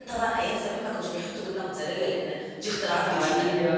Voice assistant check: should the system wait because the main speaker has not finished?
No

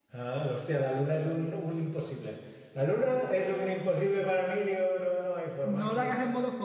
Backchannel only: No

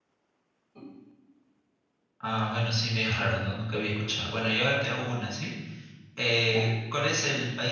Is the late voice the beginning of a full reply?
No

